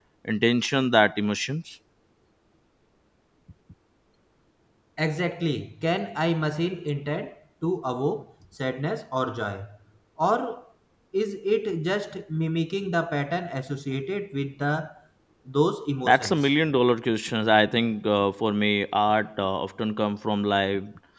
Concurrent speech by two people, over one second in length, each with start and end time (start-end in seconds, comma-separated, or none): none